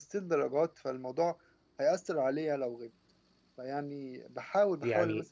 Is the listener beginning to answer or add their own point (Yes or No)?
No